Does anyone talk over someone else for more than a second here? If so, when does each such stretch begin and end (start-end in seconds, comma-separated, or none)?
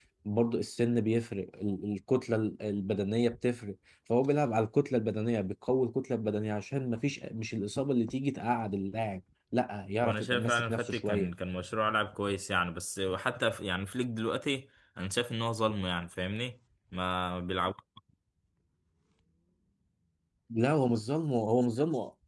10.0-11.3